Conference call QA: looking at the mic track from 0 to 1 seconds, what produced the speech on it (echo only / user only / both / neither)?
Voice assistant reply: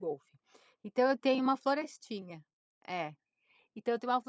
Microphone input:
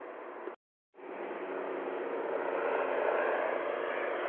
neither